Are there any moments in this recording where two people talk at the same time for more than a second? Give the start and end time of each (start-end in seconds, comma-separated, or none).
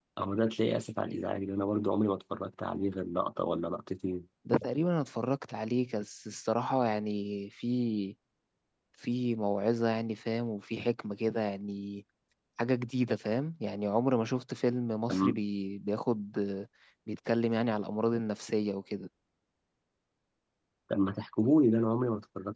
none